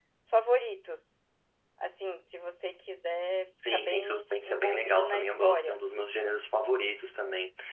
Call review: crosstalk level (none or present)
present